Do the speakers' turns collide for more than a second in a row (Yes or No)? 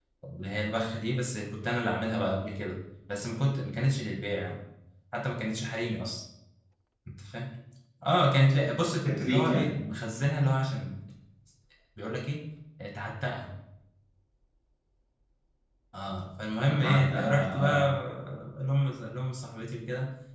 Yes